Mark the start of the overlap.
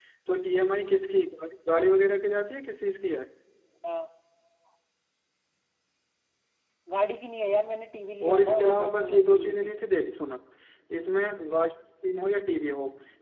8.2 s

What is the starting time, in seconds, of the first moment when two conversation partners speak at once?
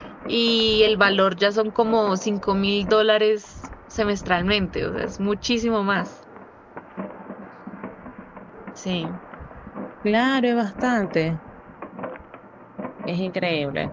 none

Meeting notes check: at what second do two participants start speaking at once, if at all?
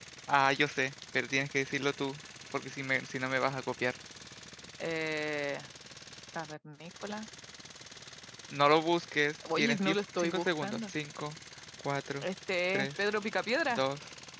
9.6 s

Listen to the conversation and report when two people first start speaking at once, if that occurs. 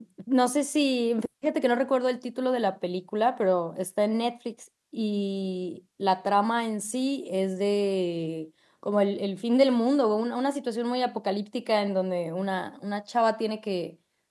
none

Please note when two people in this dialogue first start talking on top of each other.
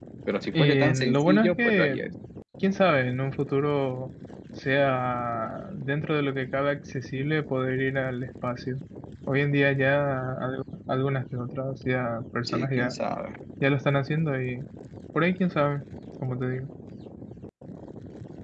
0.6 s

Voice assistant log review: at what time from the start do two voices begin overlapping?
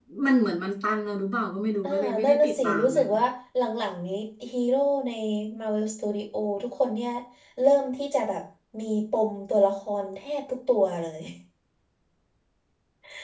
1.8 s

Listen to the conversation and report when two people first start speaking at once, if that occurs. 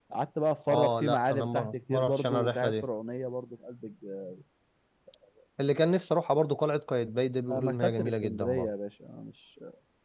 0.7 s

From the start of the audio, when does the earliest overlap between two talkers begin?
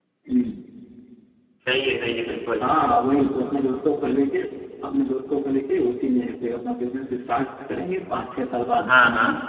none

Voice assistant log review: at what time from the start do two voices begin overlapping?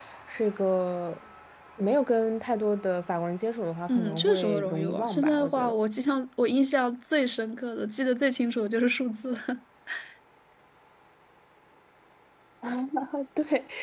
3.9 s

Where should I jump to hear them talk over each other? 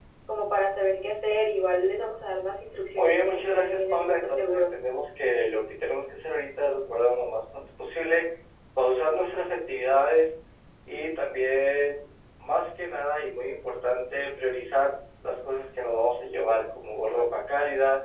3.0 s

